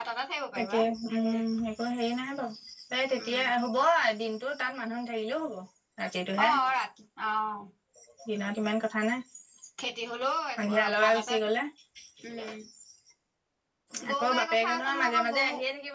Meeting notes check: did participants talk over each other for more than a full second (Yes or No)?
Yes